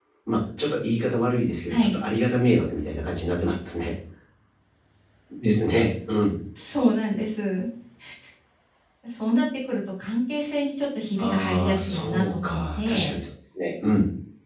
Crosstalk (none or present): present